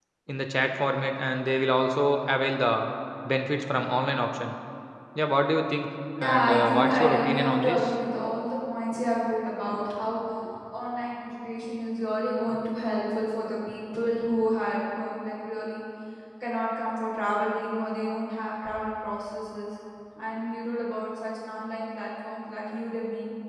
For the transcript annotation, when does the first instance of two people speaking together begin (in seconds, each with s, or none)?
6.2 s